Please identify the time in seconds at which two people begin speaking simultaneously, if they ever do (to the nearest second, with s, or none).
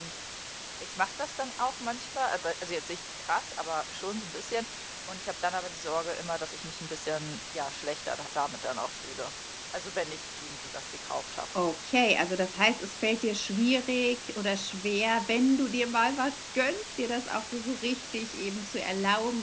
none